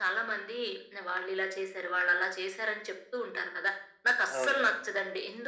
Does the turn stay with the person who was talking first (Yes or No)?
Yes